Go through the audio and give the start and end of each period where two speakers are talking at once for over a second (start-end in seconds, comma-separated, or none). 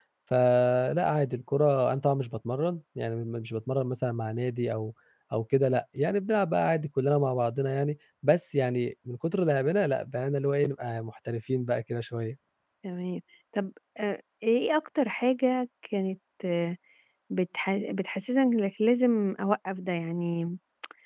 none